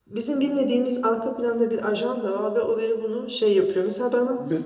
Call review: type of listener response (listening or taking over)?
listening